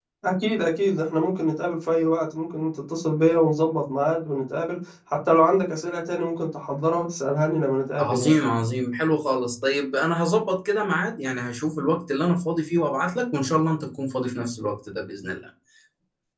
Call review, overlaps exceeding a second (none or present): none